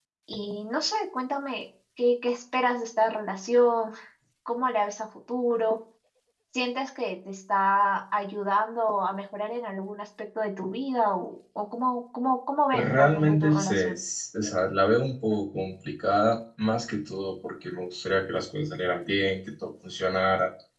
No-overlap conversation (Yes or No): No